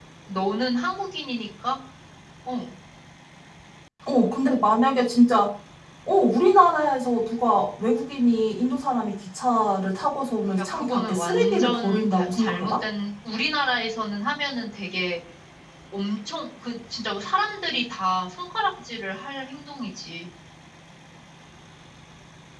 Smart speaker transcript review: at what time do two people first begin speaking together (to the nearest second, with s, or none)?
11 s